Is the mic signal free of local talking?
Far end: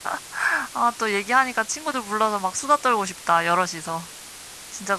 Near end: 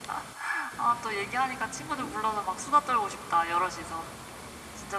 Yes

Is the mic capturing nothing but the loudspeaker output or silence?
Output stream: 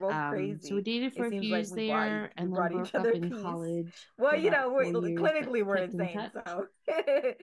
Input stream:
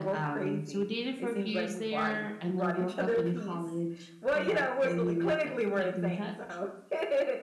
Yes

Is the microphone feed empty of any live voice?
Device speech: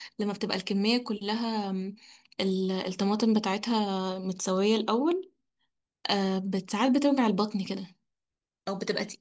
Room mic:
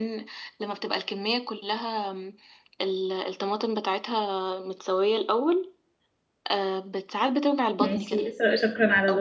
No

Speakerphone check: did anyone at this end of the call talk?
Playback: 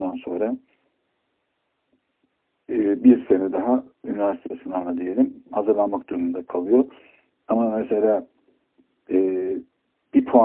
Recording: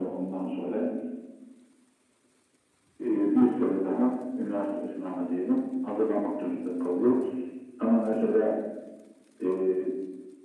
No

